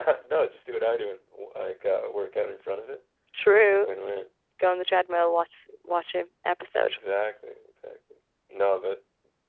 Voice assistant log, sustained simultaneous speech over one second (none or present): none